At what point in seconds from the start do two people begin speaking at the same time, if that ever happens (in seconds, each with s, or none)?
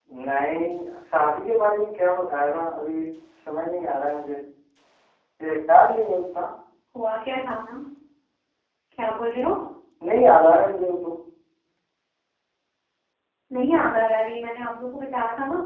none